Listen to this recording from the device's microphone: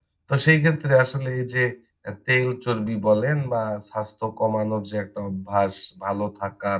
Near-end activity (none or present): present